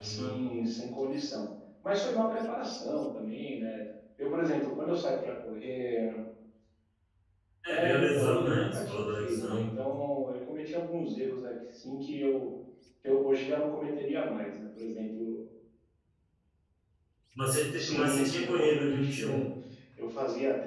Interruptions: present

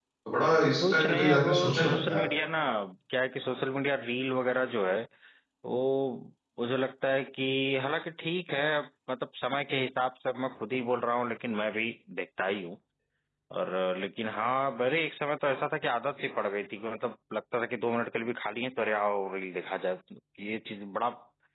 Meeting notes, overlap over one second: present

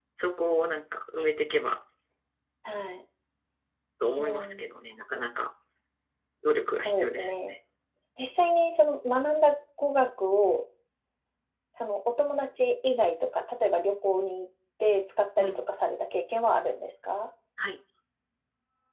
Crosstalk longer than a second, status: none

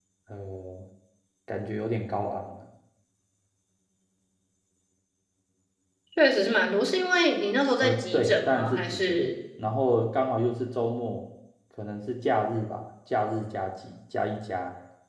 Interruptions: present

